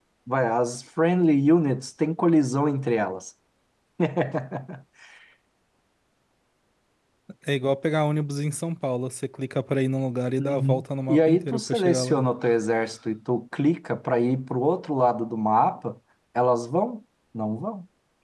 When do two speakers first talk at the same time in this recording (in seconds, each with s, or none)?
10.4 s